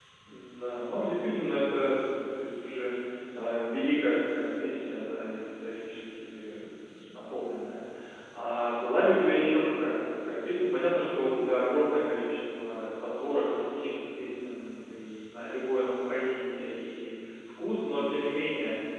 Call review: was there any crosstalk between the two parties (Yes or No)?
No